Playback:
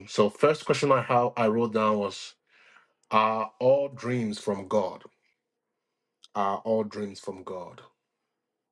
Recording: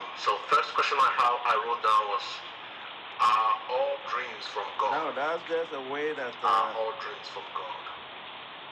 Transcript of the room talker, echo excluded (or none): no, that's just a way that uh,